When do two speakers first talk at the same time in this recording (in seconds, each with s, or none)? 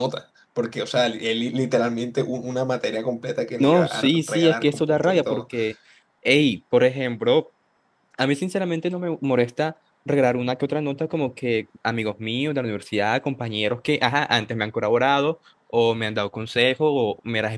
3.6 s